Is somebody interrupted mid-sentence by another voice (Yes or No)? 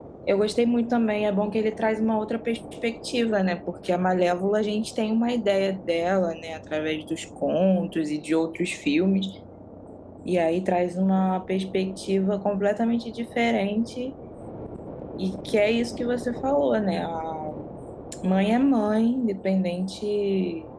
No